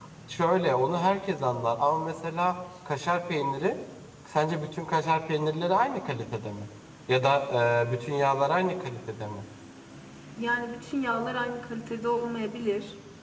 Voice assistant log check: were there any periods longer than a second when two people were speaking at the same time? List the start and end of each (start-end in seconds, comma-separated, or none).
none